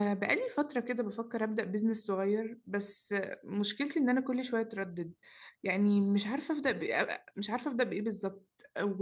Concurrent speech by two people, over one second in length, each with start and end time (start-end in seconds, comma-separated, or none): none